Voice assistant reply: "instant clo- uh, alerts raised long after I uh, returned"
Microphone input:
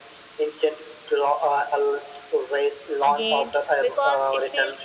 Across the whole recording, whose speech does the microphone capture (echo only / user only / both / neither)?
both